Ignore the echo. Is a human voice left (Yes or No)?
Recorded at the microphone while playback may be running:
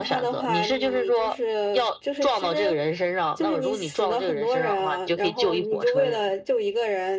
No